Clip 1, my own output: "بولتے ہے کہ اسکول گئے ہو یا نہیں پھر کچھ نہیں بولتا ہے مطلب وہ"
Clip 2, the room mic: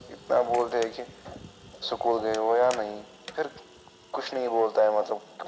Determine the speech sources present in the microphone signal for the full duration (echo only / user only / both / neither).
echo only